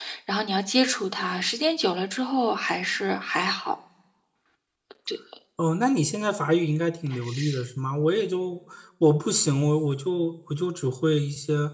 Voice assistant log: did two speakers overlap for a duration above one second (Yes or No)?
No